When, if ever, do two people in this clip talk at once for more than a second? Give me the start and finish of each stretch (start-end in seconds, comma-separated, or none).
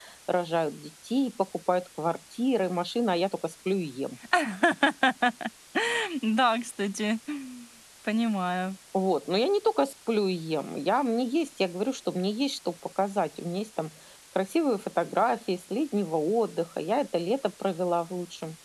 none